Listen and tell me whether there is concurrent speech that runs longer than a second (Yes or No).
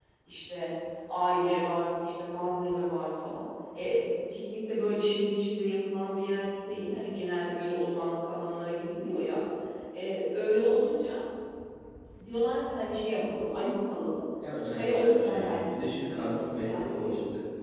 Yes